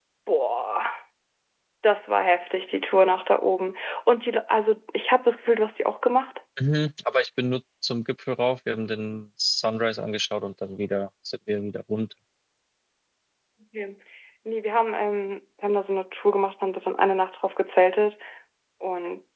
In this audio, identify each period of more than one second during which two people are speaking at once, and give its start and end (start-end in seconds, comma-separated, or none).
none